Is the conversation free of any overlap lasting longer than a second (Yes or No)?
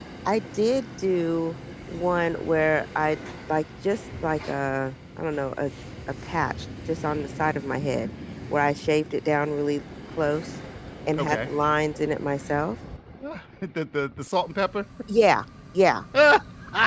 Yes